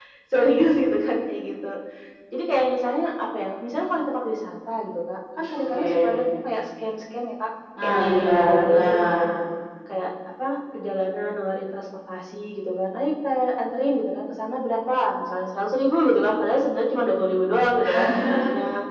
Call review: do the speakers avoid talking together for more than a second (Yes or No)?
No